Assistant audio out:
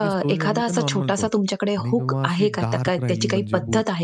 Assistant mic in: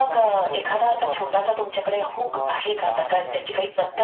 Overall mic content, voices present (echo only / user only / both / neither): echo only